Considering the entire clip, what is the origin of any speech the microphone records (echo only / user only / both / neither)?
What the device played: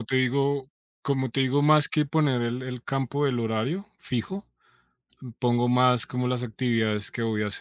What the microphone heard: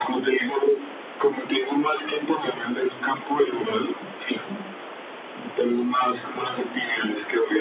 echo only